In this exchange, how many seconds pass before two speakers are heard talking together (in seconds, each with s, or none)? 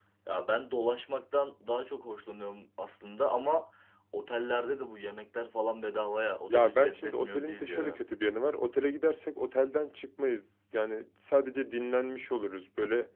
6.5 s